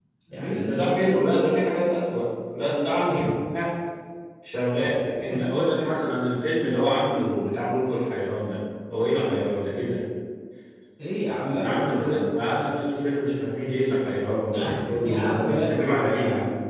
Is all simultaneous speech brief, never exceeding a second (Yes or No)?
No